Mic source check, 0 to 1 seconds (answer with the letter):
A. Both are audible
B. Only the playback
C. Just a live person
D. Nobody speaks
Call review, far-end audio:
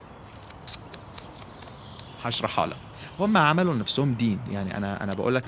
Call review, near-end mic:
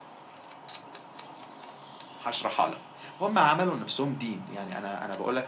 D